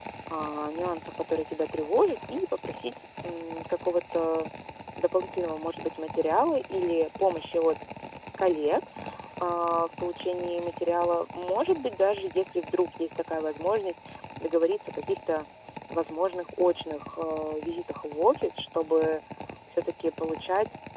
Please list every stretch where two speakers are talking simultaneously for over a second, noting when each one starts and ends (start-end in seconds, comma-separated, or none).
none